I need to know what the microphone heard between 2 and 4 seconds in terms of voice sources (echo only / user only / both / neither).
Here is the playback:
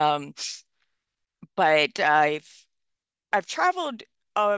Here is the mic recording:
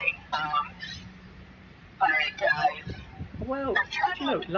both